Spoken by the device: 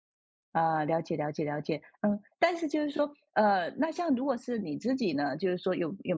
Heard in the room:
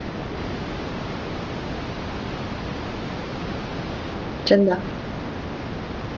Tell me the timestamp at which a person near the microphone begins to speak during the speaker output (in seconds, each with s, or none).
4.4 s